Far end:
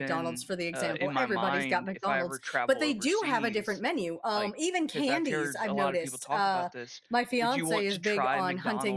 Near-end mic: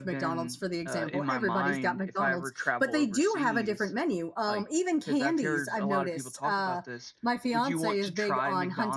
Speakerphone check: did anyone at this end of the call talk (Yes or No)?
No